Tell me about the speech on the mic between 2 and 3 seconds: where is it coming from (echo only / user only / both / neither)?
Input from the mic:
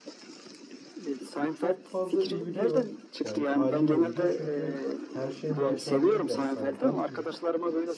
both